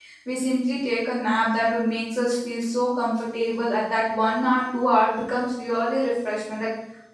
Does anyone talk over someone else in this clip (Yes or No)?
No